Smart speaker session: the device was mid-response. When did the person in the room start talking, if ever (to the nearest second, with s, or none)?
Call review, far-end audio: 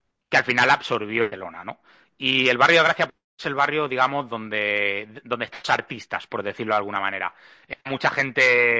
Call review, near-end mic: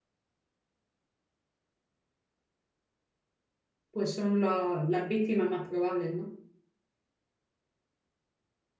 4 s